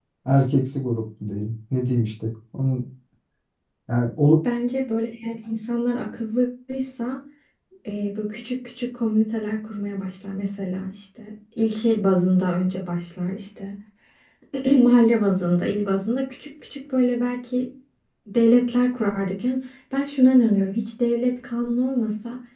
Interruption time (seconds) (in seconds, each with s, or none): none